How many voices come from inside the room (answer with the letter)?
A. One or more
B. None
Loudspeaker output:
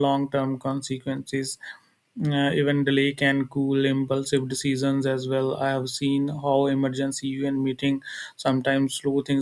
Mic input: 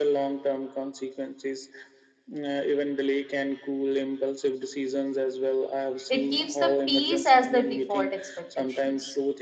A